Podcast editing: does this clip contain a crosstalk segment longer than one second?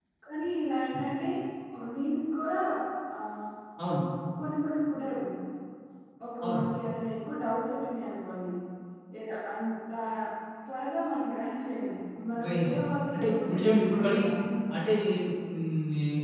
Yes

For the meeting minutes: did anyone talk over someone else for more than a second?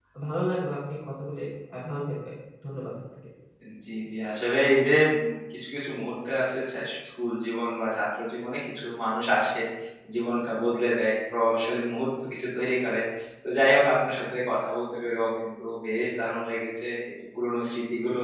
No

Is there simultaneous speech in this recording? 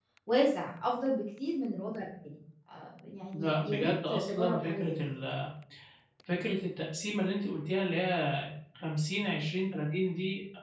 Yes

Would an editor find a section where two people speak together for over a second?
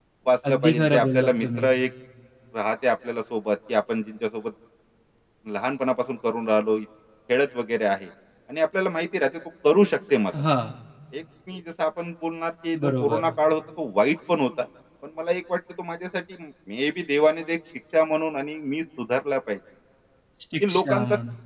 Yes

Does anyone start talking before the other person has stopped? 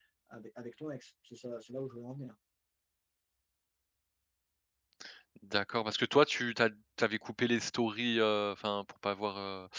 No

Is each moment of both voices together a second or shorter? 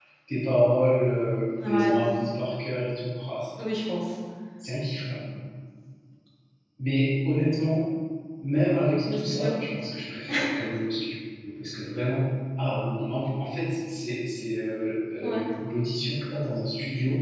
Yes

